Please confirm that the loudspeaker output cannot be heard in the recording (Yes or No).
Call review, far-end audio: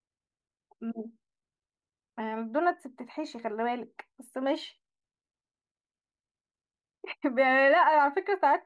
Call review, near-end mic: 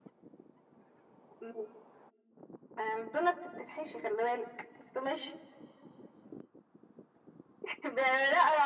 No